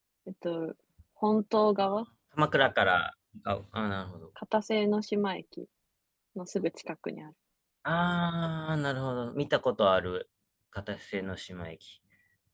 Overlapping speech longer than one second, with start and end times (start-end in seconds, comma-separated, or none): none